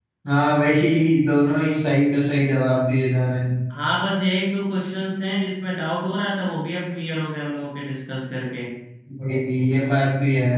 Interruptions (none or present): none